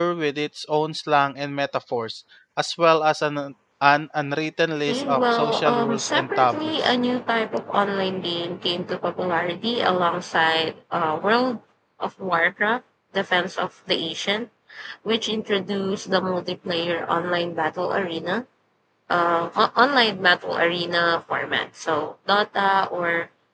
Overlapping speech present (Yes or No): Yes